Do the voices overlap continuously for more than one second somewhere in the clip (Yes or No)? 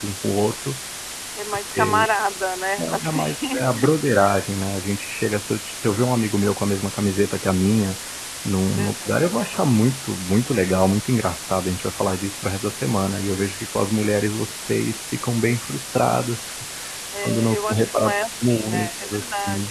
Yes